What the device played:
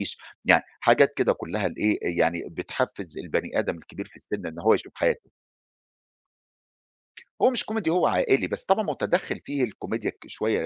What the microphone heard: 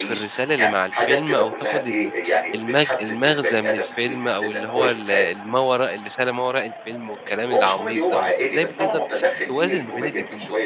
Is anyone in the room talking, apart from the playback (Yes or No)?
Yes